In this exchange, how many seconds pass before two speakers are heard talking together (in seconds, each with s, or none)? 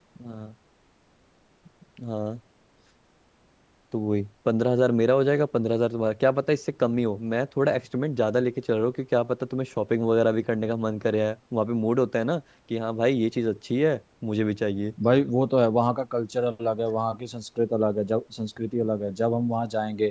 none